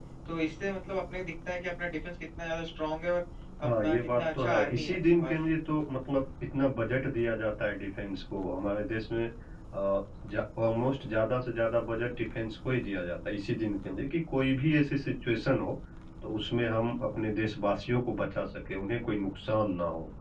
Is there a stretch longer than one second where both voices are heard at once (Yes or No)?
Yes